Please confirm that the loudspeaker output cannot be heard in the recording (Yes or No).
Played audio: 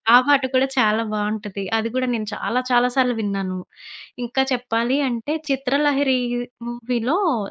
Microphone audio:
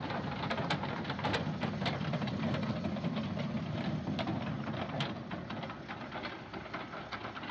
Yes